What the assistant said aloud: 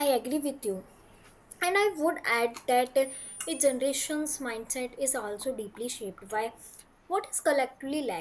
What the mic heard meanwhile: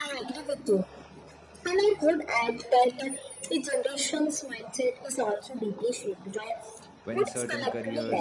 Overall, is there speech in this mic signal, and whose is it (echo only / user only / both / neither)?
both